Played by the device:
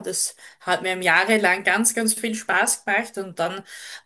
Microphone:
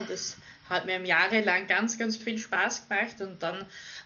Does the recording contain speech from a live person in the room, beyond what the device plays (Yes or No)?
No